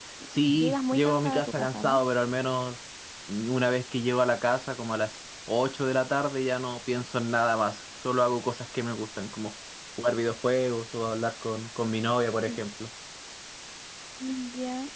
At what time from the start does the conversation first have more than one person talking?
0.5 s

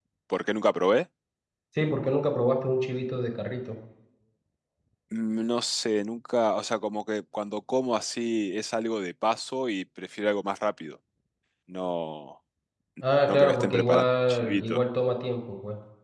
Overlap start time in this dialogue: 13.3 s

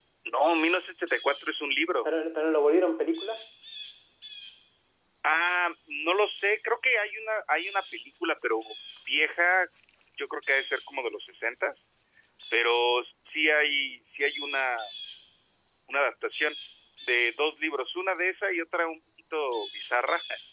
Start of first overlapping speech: none

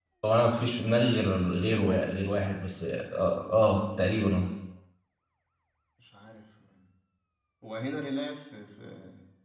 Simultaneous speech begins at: none

